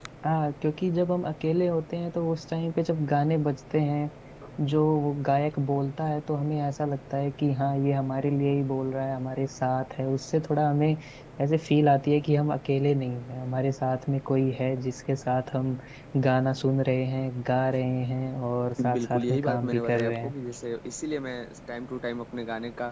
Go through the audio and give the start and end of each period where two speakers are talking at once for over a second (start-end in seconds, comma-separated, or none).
18.9-20.3